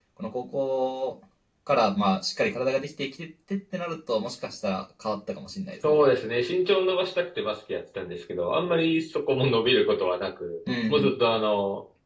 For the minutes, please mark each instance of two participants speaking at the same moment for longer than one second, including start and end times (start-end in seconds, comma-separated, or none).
none